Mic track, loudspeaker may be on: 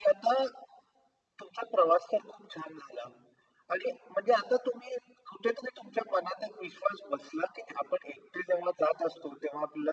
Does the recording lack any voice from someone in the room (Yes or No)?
Yes